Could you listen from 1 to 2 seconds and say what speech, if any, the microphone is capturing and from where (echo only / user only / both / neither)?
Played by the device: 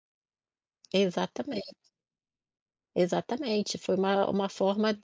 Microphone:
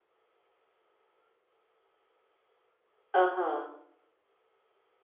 neither